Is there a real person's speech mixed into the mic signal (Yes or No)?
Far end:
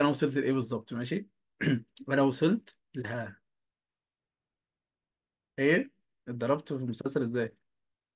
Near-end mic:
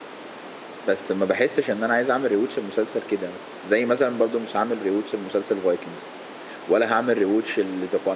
Yes